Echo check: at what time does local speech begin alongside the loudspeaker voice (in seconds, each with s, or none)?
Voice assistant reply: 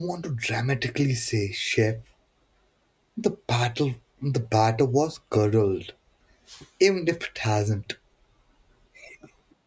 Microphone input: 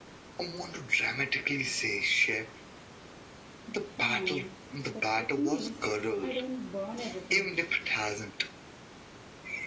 4.0 s